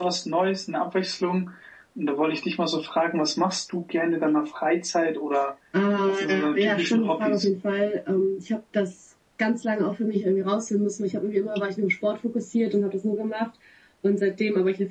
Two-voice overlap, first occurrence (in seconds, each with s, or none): 6.2 s